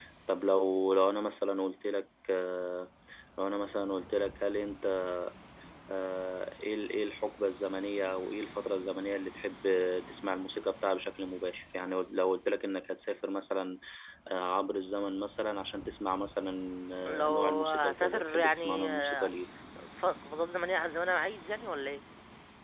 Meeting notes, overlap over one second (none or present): present